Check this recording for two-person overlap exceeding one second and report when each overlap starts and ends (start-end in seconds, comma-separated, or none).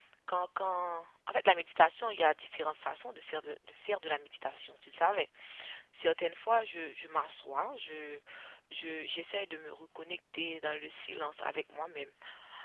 none